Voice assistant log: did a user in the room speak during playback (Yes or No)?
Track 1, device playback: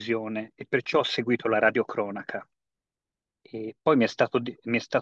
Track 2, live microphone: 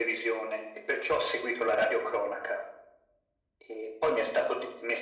No